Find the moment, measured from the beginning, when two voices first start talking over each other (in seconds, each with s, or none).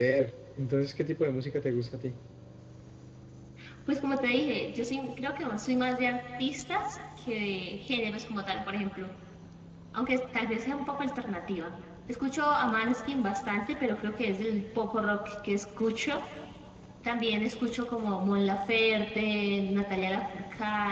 none